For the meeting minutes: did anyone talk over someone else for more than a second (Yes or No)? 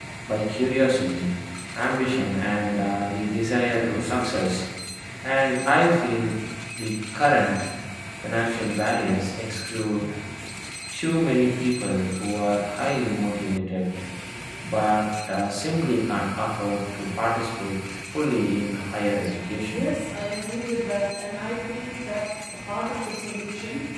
No